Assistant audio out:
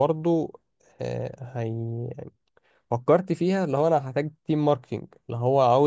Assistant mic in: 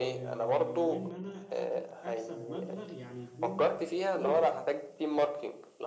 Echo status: present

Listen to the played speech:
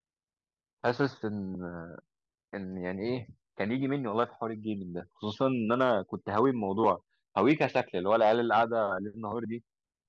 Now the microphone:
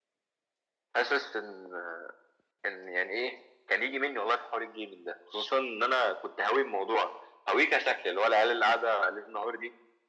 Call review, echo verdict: present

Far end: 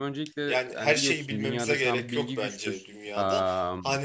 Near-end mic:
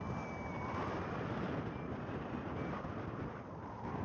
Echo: none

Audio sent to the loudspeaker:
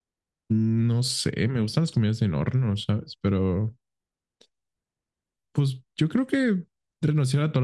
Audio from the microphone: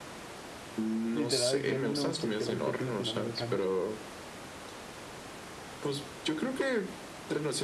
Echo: present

